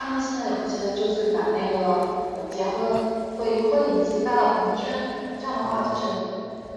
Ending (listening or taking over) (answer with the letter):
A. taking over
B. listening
B